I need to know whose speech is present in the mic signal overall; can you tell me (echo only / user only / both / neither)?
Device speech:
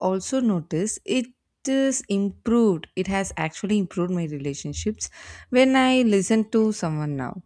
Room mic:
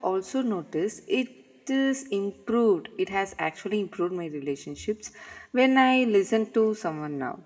echo only